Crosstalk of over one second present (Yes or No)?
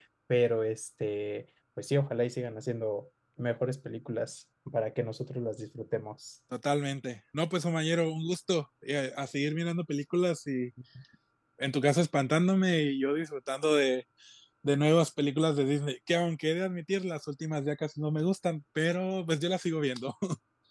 No